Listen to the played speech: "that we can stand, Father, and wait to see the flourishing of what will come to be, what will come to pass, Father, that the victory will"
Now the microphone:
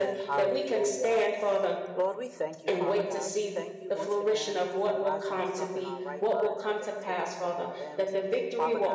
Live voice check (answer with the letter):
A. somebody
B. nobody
A